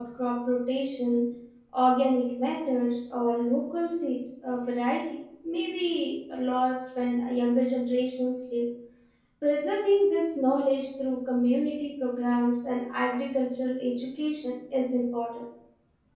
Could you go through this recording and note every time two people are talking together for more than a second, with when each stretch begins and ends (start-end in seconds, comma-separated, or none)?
none